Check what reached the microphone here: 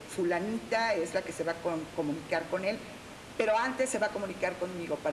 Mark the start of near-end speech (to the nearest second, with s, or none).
none